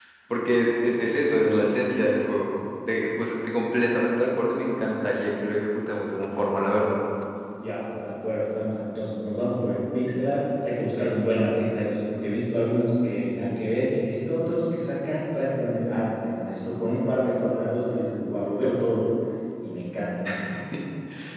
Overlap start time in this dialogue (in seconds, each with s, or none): none